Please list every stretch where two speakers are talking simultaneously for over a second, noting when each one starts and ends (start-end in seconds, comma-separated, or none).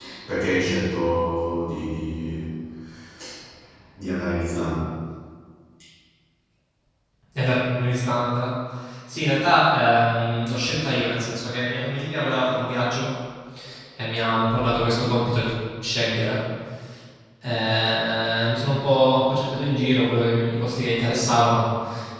none